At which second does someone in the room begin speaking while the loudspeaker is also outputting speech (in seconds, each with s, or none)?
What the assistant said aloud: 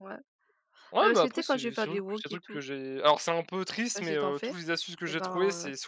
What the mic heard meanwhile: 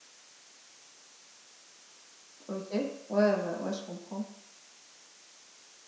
2.5 s